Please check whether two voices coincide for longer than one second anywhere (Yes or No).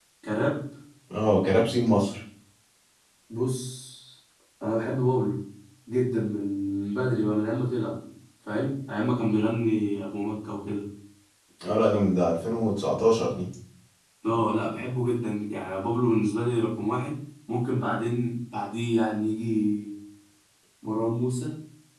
No